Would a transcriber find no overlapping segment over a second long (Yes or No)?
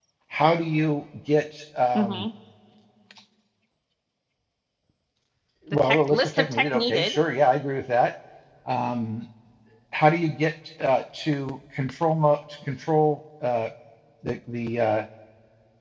No